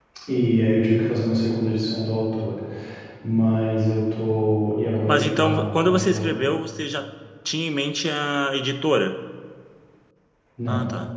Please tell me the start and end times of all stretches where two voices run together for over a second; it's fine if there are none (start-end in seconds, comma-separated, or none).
5.1-6.4